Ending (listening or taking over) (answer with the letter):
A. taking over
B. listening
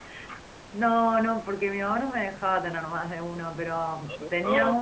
B